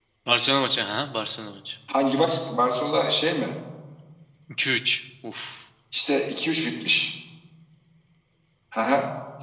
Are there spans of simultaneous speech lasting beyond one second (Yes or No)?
No